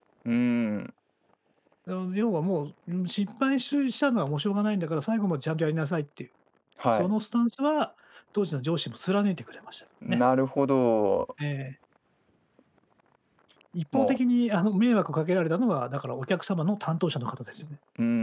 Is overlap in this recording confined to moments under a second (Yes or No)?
Yes